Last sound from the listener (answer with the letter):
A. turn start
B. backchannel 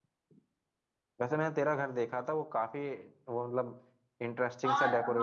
A